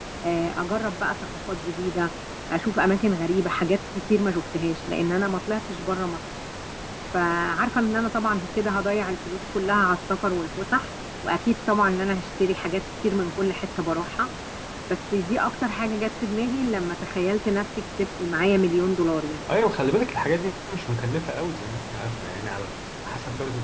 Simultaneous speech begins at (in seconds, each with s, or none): none